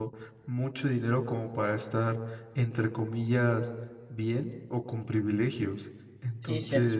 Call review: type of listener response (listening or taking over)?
taking over